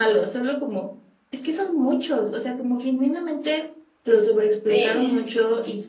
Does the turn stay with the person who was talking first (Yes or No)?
Yes